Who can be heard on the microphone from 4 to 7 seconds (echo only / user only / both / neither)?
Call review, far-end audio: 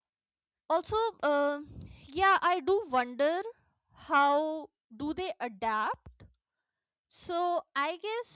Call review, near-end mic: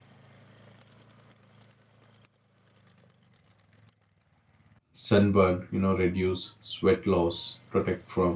user only